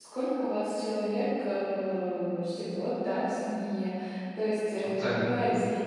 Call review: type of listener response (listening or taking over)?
listening